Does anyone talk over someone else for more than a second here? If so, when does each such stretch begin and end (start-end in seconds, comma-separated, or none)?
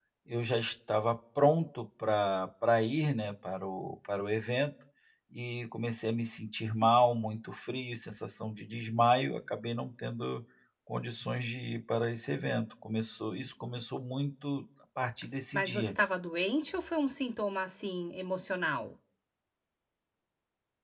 none